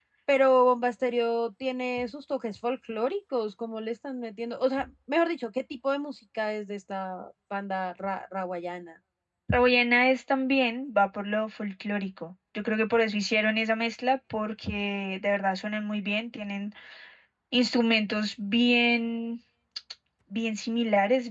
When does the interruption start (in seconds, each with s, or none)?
none